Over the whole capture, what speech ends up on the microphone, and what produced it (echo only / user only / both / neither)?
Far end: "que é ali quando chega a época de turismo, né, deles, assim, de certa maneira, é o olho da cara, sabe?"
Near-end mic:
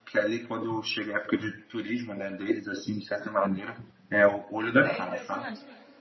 both